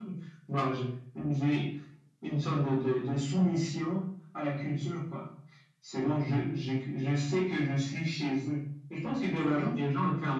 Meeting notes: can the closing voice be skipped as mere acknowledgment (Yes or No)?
Yes